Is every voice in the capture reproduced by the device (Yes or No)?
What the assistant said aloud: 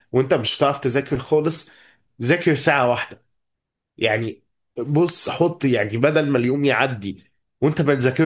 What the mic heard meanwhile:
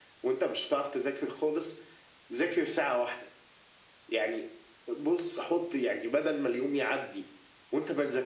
Yes